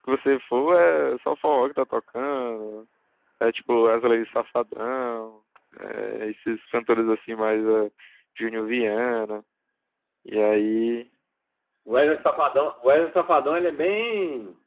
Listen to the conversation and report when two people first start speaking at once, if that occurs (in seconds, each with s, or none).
none